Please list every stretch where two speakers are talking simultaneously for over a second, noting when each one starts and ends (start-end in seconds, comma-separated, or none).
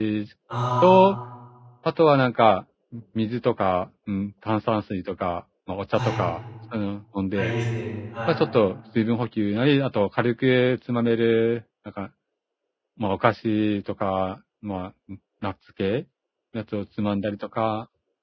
none